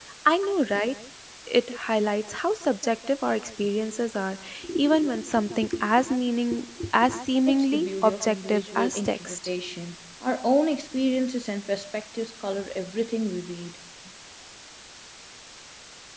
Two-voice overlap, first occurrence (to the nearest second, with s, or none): 7 s